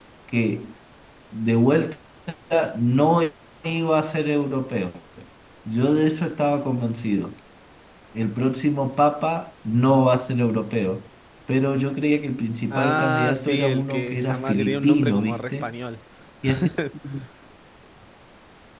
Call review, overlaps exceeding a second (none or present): present